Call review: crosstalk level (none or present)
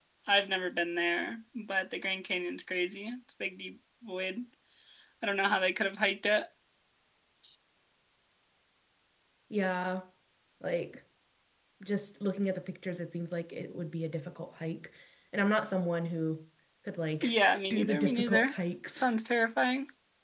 present